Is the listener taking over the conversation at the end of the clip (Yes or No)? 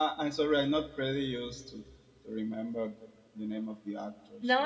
Yes